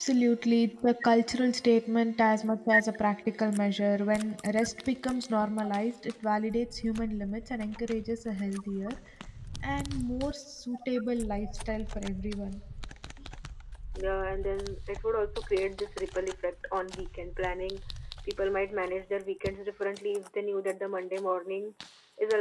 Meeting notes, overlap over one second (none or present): none